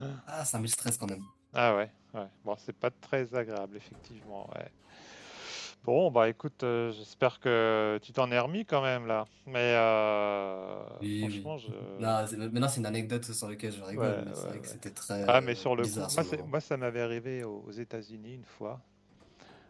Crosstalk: present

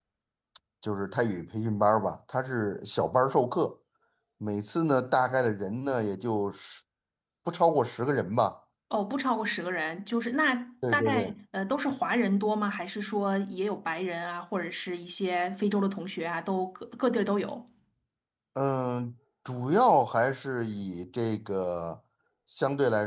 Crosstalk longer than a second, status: none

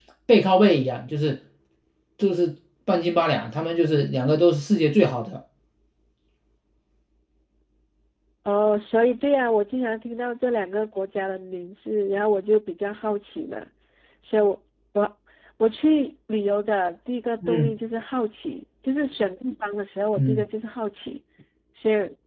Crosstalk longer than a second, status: none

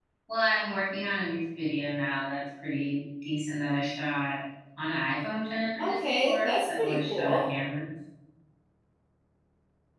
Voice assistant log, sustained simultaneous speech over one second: present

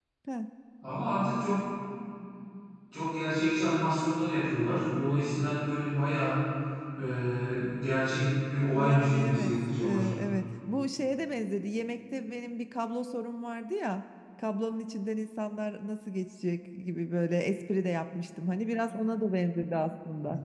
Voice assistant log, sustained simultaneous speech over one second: present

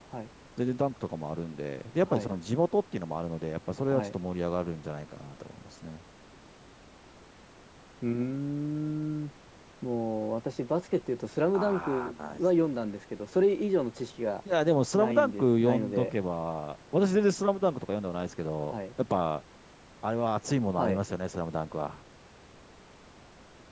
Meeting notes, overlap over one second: present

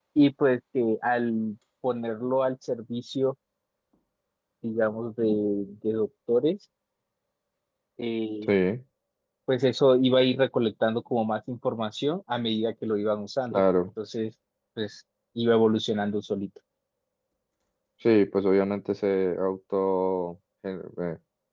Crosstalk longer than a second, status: none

